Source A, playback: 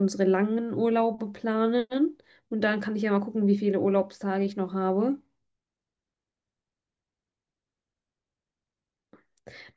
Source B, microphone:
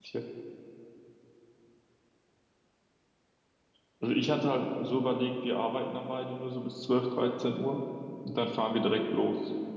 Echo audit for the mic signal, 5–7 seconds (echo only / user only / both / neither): user only